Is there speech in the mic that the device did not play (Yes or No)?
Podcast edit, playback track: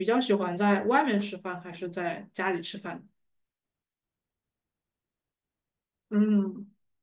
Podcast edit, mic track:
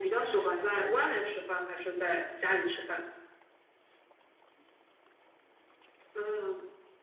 No